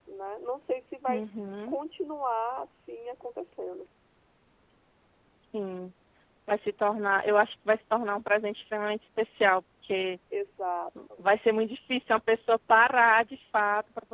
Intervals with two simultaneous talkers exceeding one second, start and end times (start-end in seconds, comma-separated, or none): none